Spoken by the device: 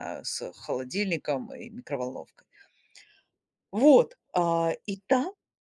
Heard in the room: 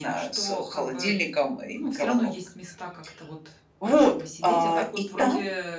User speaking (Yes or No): Yes